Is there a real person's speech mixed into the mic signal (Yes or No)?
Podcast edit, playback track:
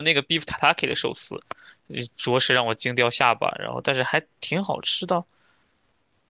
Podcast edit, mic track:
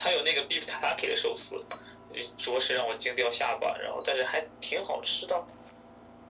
No